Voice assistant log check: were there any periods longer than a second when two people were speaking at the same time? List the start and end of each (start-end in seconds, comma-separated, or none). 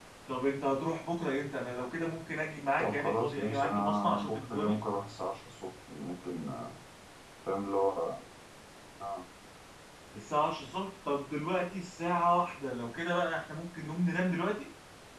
2.8-4.8